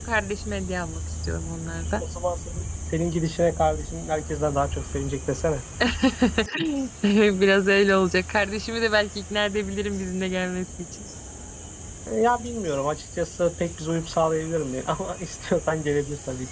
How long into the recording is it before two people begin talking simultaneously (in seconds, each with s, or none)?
none